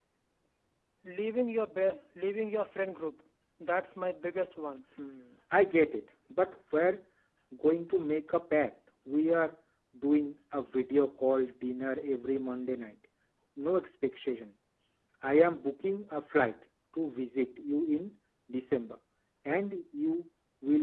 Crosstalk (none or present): none